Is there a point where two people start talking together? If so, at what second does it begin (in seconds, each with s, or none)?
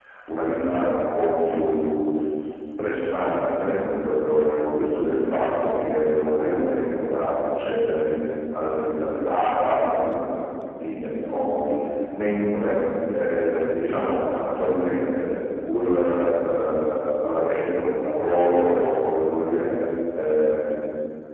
none